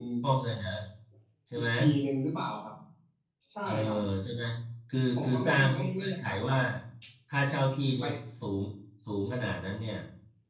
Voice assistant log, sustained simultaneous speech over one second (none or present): present